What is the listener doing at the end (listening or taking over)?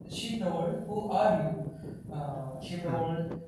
listening